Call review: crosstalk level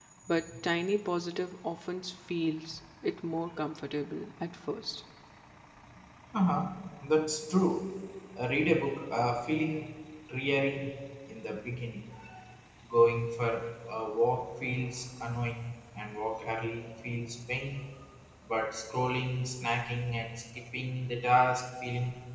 none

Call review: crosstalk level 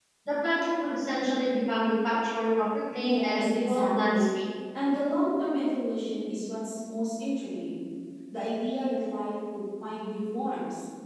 present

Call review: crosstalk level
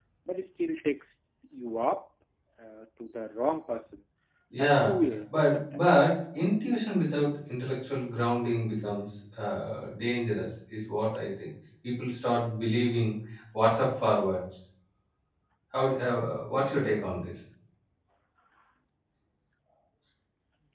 present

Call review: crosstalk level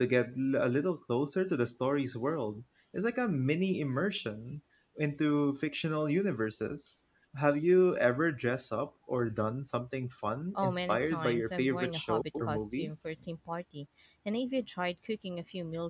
present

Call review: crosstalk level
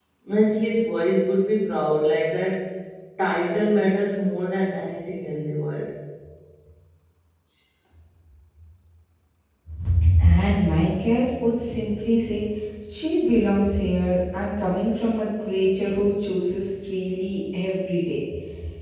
none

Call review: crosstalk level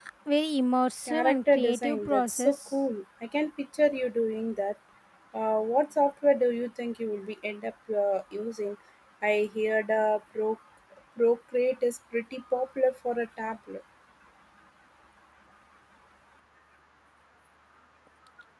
present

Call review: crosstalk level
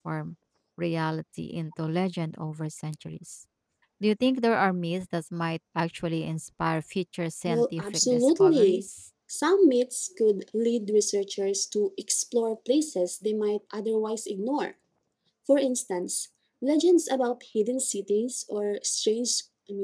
present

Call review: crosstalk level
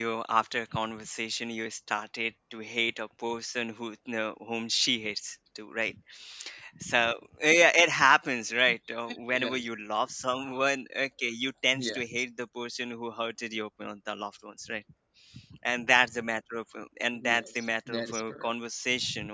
present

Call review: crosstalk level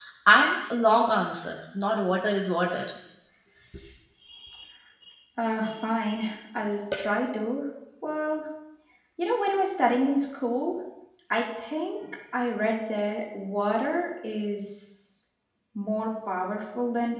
none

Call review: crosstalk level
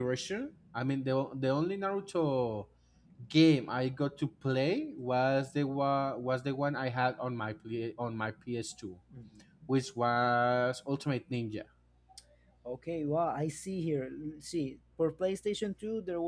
none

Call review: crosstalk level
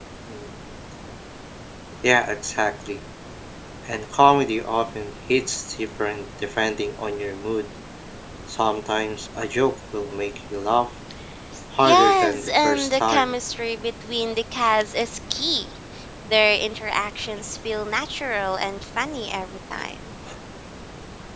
present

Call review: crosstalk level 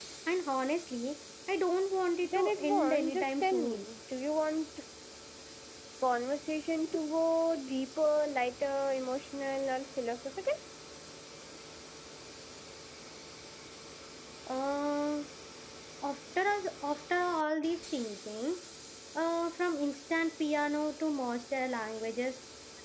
present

